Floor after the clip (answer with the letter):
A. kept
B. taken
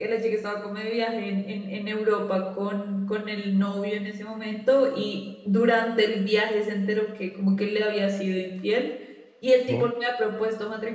A